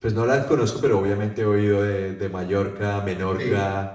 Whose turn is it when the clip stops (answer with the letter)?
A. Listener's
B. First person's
A